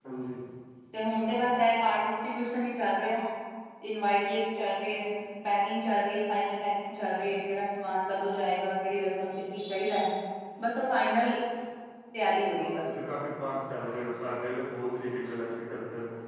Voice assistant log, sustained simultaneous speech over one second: none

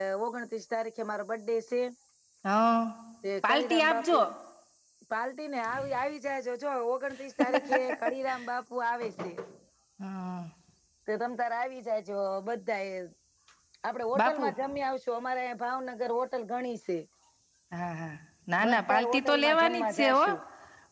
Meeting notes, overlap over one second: present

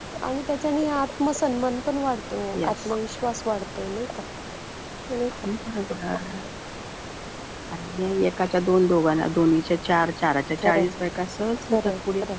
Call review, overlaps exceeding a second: none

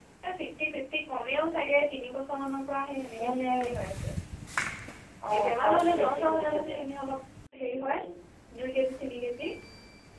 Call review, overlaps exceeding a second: present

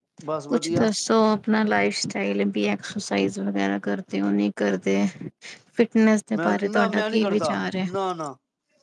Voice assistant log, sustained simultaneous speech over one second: present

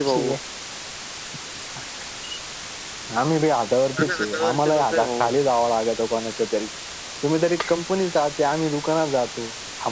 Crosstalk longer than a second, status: present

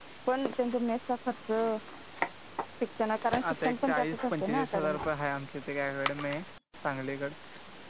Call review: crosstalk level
present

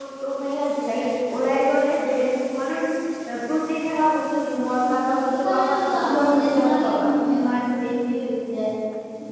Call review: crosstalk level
present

